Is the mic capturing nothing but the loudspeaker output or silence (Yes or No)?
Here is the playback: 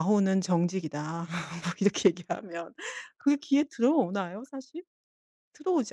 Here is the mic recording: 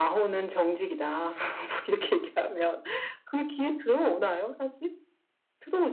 Yes